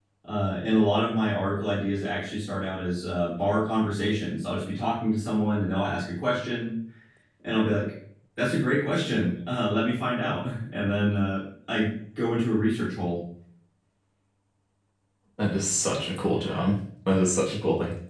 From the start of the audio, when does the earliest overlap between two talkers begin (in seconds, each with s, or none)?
none